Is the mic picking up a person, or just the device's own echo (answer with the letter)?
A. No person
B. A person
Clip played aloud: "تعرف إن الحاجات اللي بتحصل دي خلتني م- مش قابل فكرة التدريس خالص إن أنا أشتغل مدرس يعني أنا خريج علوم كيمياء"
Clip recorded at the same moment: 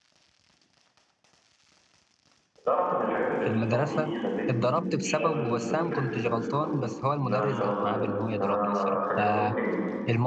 B